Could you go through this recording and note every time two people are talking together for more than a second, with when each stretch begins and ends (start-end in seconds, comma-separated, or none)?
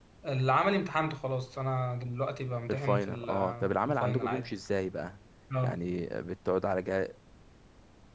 2.7-4.5